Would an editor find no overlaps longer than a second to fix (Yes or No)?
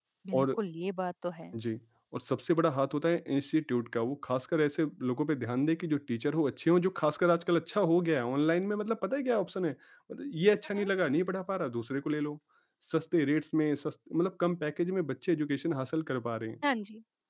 Yes